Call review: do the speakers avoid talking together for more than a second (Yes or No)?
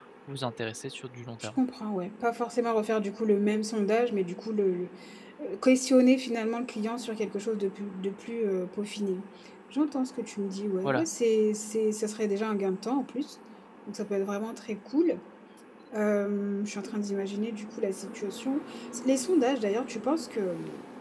Yes